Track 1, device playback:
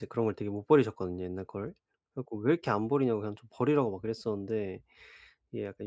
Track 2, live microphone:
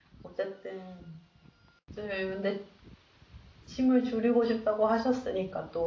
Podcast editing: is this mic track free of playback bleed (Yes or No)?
Yes